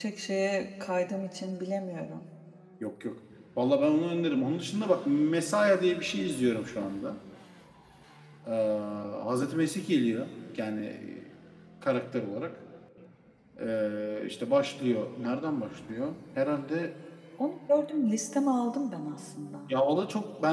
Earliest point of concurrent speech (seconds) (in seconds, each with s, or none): none